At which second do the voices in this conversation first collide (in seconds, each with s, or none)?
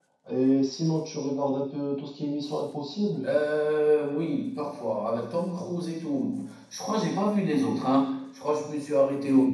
none